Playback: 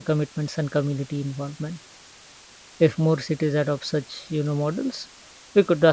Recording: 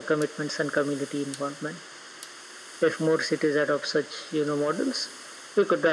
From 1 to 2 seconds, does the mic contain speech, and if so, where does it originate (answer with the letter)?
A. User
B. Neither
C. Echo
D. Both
C